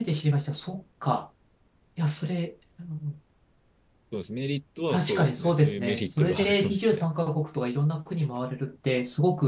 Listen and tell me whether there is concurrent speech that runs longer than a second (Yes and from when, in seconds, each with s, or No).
Yes, from 4.9 s